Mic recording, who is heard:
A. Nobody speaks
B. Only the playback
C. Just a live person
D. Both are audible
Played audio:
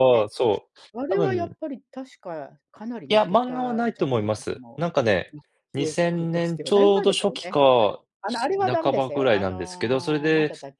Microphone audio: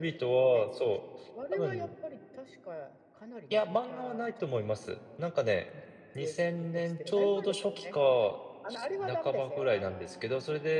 B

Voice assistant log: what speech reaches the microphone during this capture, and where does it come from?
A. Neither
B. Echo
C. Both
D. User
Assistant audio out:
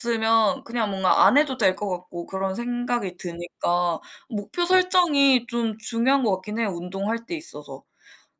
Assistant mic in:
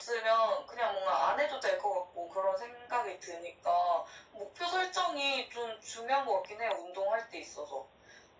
B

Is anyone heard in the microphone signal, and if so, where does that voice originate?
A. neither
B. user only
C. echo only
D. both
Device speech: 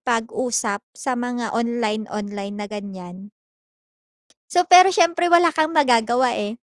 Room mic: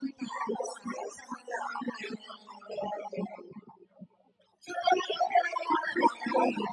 C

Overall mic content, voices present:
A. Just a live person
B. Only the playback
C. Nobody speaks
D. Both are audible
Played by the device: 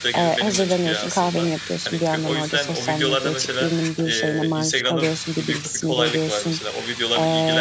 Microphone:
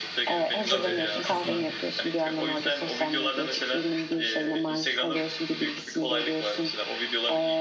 D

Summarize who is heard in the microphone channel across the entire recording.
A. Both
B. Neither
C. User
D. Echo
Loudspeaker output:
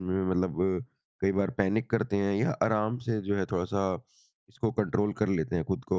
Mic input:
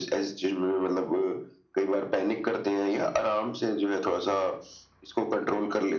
D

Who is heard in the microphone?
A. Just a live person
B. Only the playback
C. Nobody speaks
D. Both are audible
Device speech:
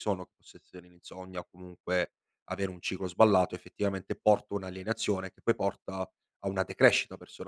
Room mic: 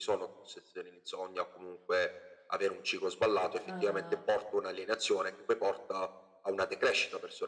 D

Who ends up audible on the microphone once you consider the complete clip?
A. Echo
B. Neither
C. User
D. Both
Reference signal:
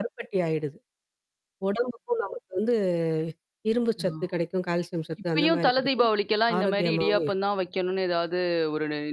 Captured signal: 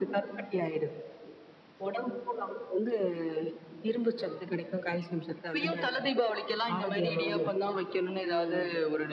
D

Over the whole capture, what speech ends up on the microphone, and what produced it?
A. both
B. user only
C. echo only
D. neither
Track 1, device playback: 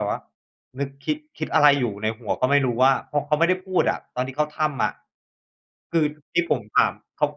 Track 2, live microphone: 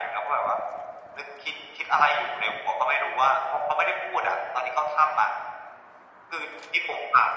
C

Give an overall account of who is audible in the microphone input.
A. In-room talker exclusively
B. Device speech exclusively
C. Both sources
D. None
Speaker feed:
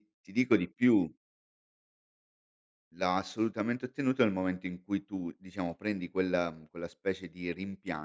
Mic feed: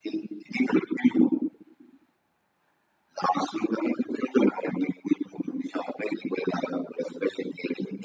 B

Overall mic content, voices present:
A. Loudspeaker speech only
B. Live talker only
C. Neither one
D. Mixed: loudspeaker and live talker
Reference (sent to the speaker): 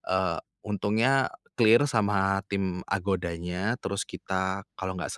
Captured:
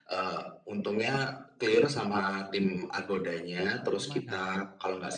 D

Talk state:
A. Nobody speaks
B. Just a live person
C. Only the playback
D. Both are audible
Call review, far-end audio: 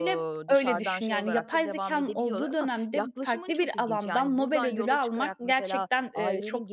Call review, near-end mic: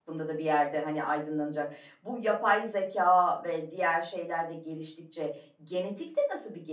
B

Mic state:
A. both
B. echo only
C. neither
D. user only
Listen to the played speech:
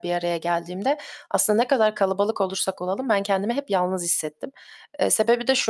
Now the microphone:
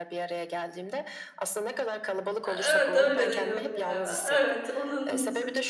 A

